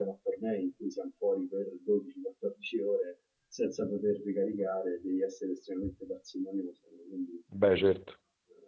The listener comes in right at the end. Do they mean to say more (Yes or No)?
No